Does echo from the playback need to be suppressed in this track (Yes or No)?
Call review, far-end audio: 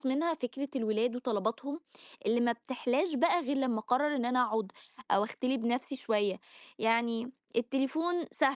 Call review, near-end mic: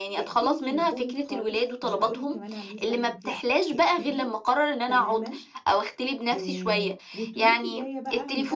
Yes